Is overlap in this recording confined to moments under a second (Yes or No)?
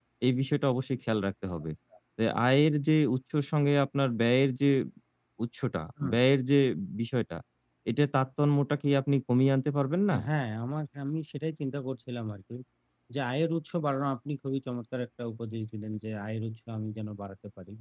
Yes